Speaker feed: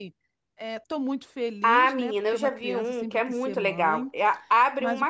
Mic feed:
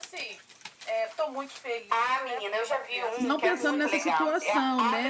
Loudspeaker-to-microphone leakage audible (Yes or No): Yes